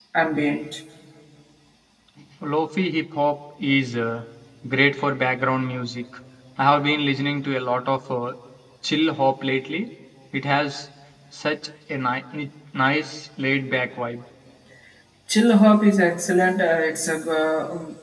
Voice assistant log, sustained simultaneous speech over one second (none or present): none